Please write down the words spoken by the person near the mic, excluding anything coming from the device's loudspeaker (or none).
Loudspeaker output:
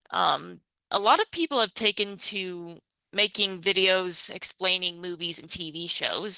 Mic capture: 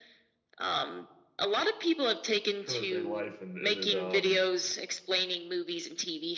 current day life and and it um